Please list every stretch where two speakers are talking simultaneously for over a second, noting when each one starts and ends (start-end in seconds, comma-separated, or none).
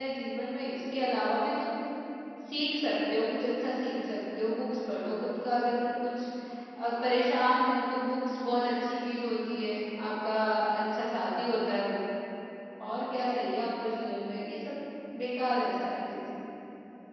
none